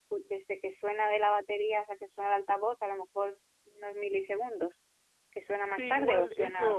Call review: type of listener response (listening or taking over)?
taking over